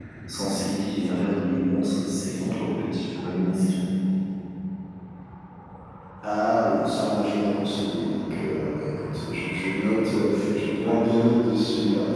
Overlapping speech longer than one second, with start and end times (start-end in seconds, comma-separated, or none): none